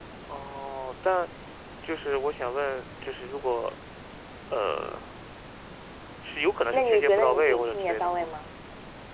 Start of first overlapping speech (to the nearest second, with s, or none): 7 s